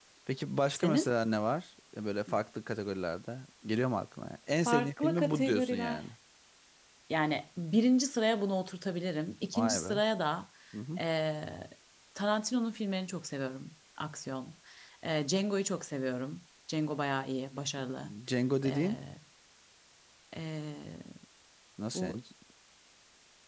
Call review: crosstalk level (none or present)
present